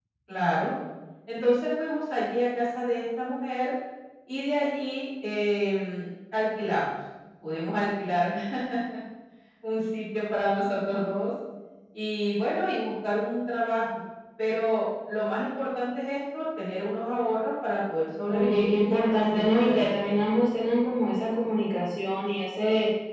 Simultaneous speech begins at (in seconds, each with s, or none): 18.3 s